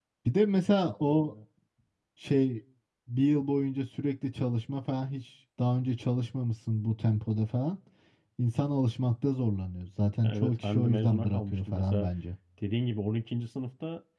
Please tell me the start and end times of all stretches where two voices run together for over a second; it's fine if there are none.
10.2-12.1

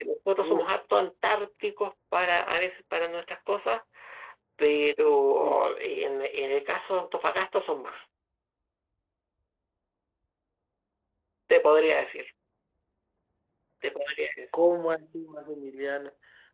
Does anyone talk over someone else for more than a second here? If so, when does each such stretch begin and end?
none

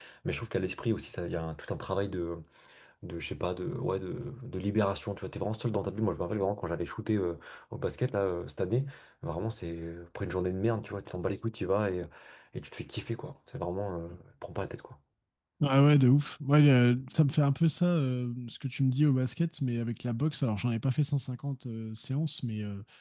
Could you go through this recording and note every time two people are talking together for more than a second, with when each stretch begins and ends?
none

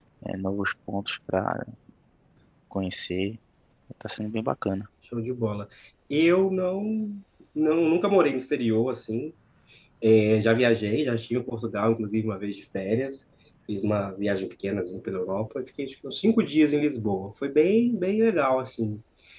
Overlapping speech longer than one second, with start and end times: none

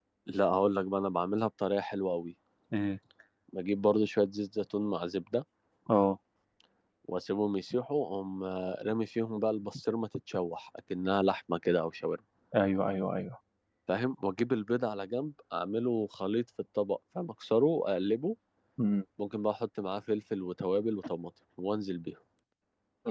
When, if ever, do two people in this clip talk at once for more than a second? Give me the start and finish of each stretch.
none

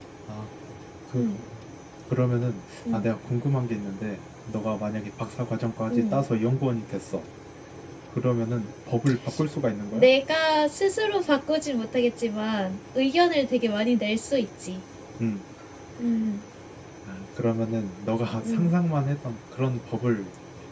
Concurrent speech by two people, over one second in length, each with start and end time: none

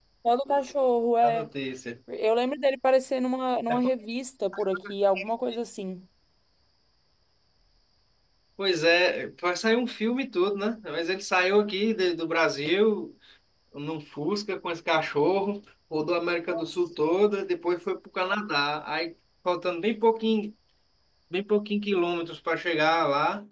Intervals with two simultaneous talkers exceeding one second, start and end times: none

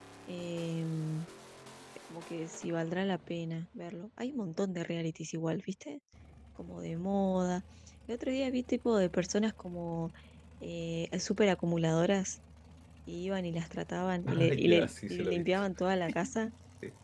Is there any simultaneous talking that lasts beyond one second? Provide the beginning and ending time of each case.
14.3-15.6

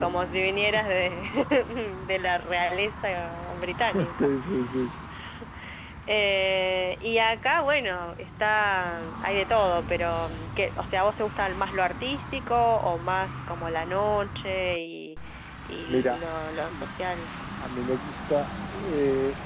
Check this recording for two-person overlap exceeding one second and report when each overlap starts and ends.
none

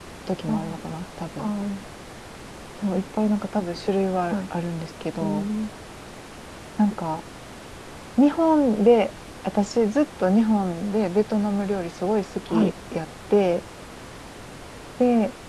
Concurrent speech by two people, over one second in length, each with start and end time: none

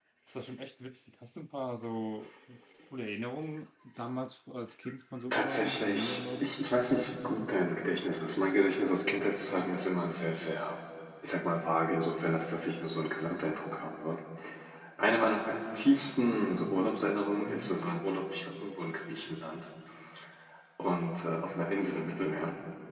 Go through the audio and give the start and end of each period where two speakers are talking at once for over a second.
5.3-6.5

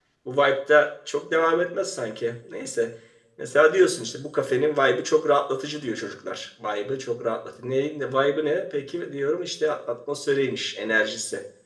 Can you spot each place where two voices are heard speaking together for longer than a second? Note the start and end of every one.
none

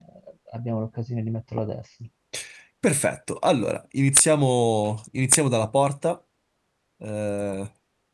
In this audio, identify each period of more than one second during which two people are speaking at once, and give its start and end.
none

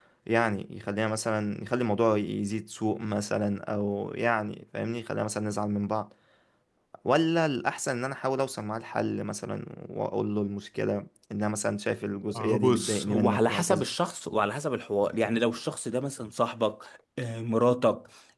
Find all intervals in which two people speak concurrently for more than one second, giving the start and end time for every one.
12.3-13.9

